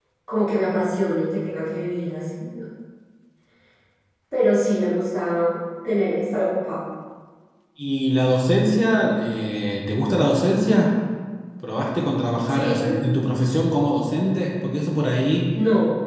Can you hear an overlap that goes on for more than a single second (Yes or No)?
No